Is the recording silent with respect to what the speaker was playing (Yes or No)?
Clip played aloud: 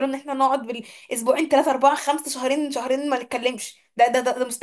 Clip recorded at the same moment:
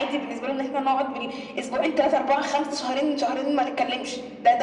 No